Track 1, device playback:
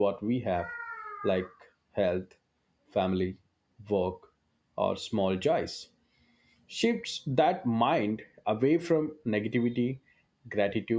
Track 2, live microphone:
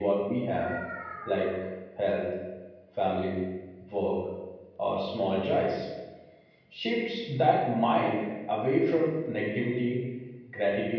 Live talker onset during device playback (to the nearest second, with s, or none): none